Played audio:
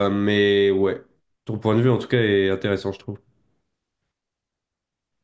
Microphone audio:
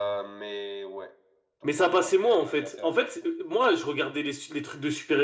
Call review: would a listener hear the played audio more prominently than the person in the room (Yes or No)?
No